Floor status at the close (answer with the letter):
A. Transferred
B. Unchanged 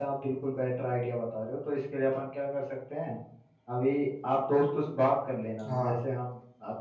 B